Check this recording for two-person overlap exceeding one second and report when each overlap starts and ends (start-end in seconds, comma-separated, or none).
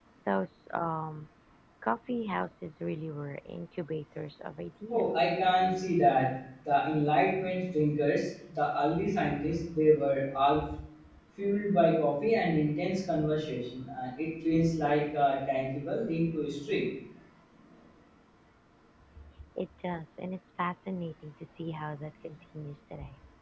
none